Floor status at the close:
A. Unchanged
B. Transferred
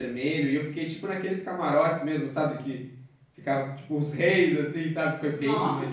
B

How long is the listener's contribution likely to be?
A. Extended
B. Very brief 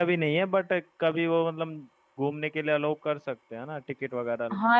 A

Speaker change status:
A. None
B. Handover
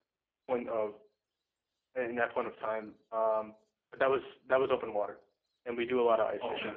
A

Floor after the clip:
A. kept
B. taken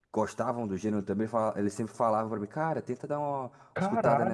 B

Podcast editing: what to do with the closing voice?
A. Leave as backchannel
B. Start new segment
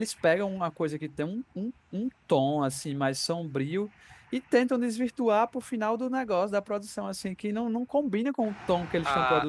B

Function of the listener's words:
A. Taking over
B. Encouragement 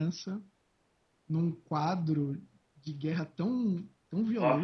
A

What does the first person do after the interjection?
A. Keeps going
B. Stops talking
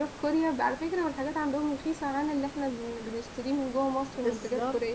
B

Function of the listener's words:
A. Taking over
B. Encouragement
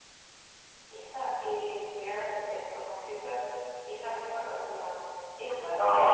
A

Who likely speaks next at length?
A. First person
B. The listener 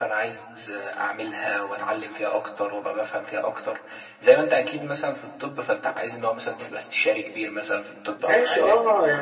B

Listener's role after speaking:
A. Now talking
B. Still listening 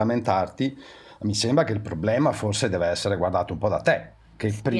A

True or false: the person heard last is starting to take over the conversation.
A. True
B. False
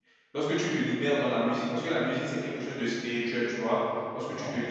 B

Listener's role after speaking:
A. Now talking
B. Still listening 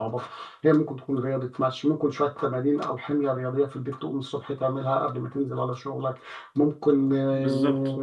B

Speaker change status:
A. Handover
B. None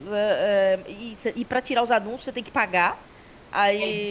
B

